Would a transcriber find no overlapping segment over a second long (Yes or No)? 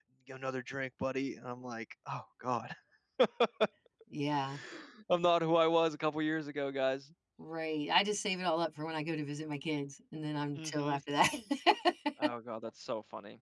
Yes